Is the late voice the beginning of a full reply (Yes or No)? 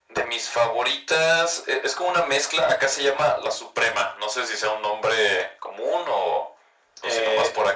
Yes